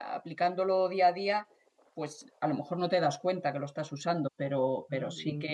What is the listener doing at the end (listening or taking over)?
listening